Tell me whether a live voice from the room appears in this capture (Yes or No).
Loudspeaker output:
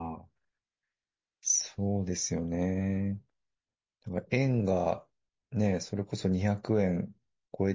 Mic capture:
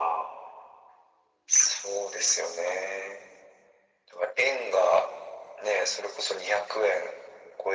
No